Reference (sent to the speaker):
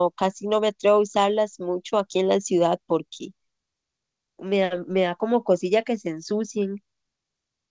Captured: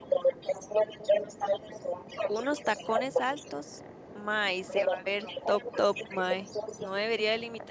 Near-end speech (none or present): present